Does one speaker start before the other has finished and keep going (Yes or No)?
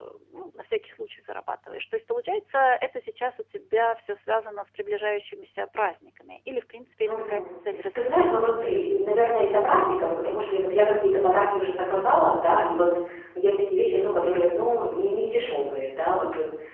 Yes